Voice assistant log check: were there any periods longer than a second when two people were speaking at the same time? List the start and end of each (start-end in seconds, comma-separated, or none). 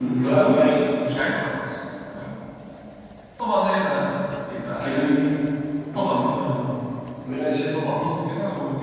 none